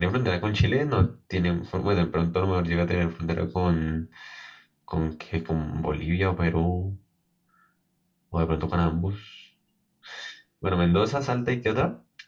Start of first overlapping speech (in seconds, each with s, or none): none